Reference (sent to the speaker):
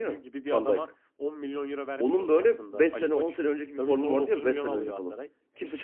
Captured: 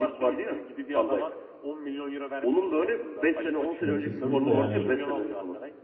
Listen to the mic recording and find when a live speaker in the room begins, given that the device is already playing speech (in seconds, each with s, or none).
3.8 s